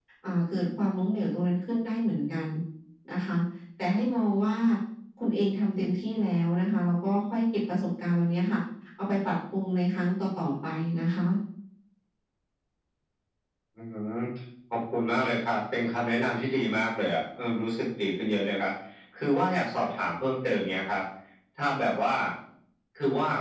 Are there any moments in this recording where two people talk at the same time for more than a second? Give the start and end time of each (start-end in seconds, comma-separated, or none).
none